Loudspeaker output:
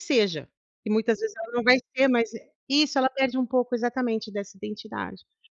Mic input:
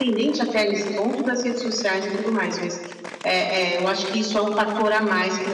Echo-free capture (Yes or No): Yes